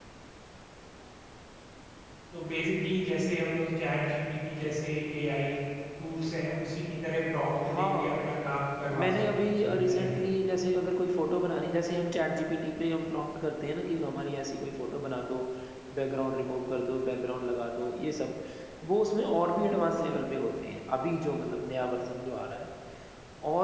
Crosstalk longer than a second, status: present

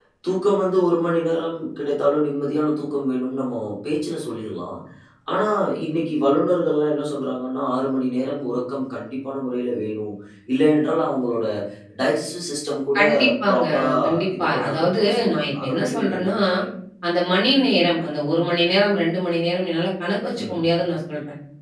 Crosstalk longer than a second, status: present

